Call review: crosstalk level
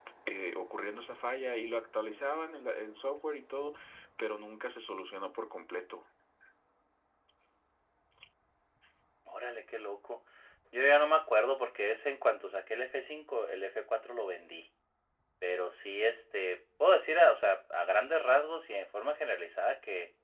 none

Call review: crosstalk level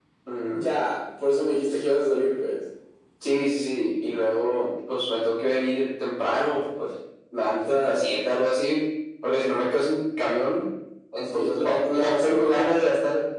present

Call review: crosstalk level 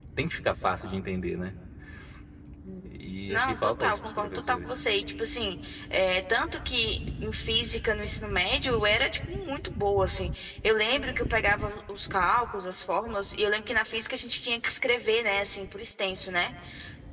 present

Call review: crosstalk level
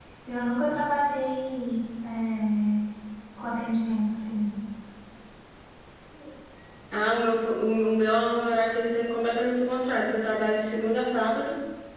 none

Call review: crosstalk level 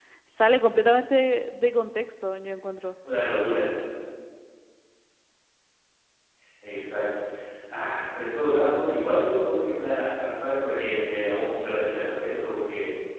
none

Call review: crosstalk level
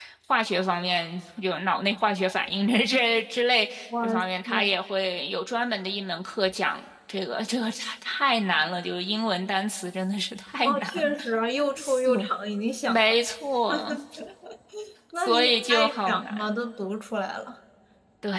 present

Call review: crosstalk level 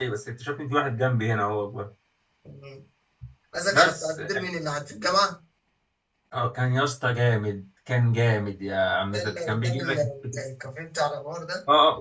present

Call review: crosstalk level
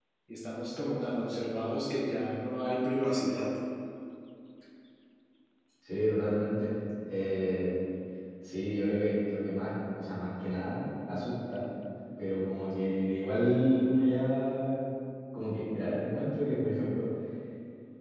none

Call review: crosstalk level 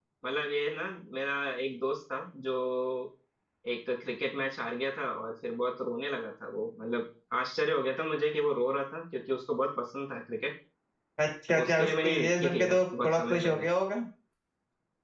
present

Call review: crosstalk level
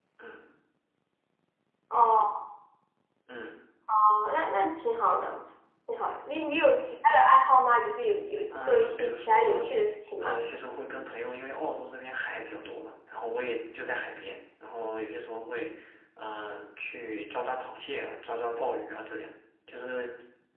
present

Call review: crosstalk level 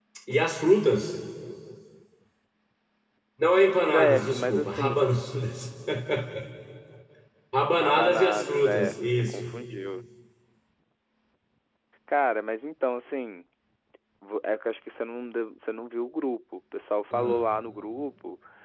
present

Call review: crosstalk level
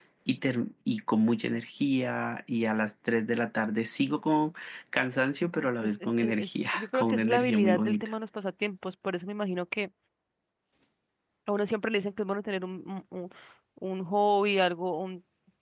present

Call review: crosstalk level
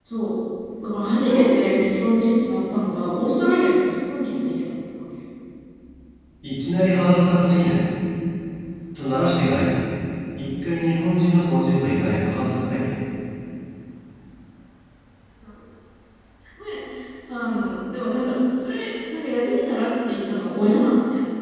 none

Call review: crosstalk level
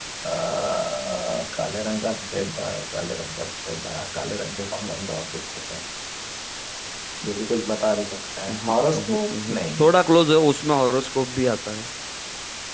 present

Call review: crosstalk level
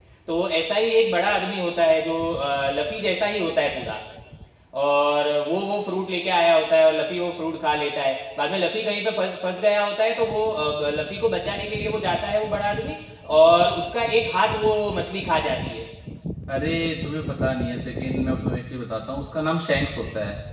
none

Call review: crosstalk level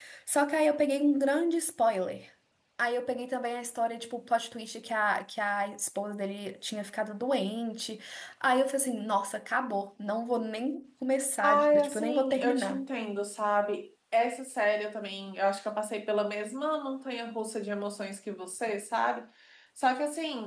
present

